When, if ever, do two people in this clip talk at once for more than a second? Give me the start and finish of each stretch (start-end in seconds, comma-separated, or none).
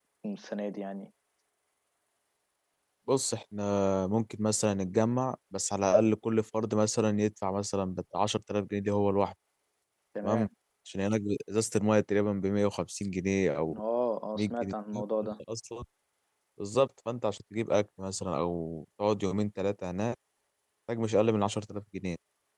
none